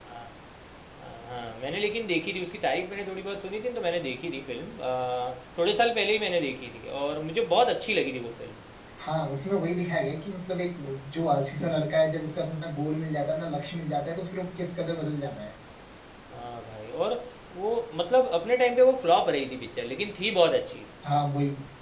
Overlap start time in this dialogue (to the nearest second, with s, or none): none